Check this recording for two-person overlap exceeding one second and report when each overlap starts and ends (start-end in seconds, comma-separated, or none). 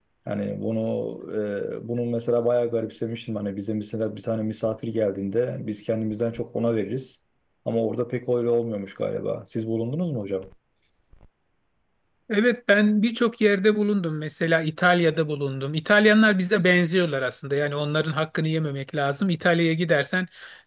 none